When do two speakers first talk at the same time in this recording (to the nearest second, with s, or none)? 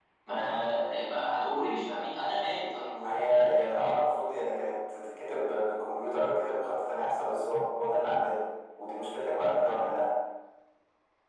none